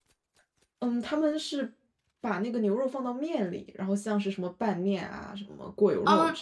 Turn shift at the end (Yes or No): Yes